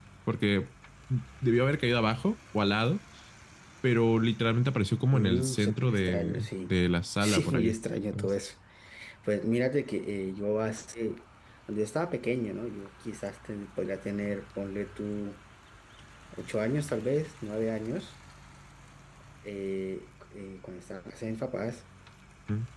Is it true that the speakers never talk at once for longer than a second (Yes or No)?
No